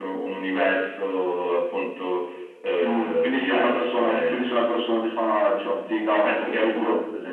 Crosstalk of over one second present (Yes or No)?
Yes